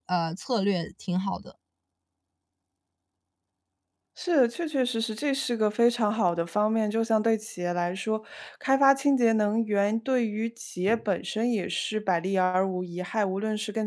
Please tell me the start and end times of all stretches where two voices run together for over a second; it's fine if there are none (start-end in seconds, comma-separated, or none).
none